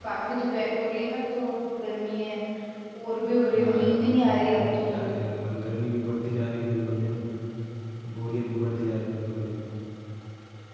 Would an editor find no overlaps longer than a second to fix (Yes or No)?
No